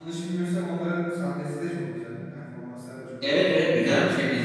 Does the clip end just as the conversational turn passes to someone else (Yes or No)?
Yes